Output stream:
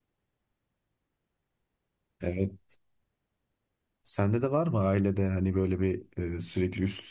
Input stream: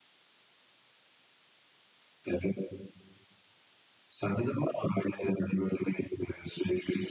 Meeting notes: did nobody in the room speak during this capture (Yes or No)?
Yes